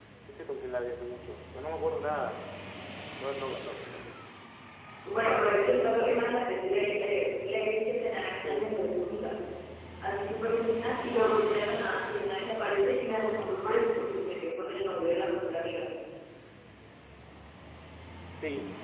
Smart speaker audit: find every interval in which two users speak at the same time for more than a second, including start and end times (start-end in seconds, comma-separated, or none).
none